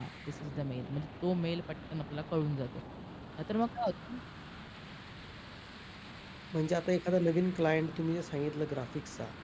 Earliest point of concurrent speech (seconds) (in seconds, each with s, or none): none